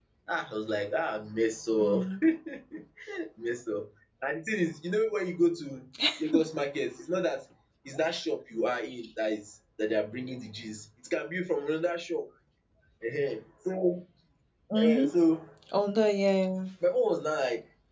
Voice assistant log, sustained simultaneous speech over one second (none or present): none